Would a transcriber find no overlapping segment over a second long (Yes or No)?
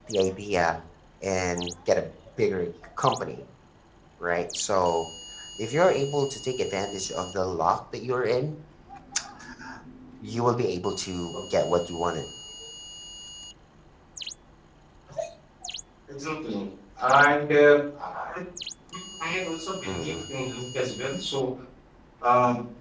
Yes